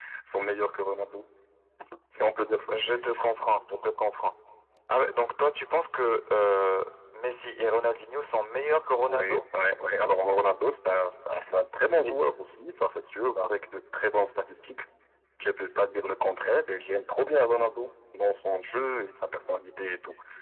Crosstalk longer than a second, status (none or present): none